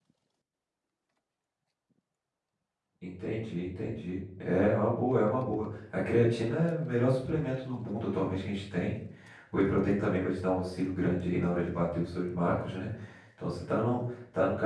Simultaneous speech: No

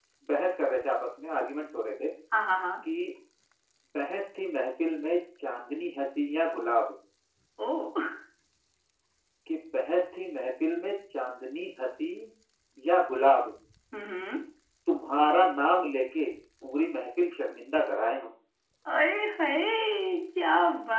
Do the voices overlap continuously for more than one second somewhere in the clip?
No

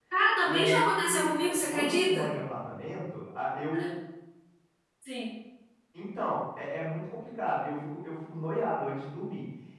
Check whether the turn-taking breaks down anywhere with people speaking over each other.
Yes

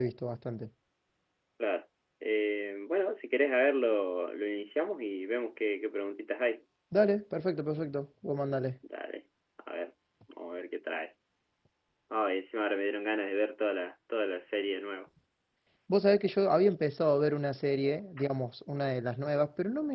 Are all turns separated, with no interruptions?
Yes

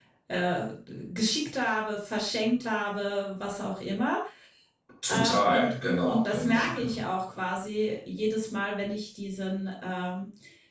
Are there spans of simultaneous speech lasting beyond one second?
Yes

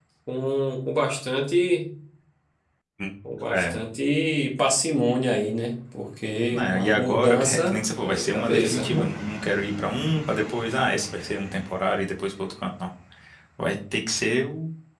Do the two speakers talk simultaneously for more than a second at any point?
Yes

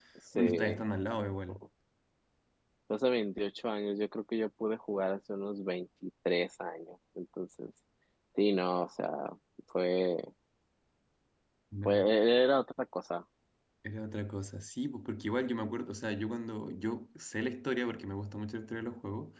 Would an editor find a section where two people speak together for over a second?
No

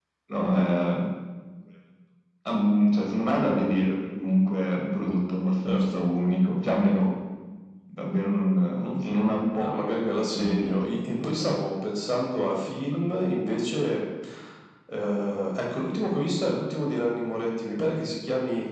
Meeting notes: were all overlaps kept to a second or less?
No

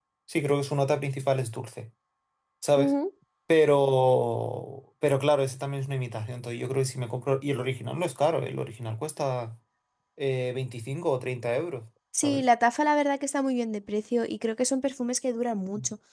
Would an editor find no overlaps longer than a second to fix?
Yes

